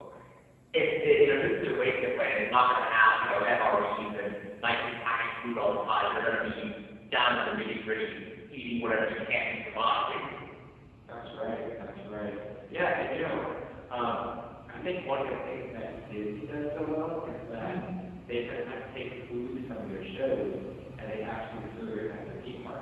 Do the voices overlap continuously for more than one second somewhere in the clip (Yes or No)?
No